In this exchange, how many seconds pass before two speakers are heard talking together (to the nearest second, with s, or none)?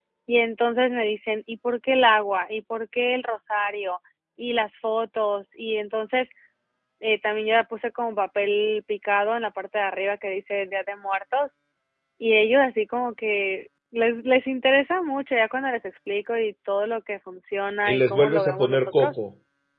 18 s